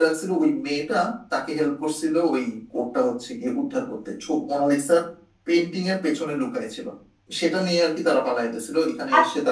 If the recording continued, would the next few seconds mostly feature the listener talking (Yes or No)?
Yes